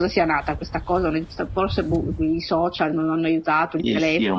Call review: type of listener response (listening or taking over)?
taking over